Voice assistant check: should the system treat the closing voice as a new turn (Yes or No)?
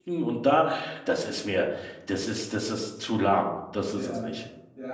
Yes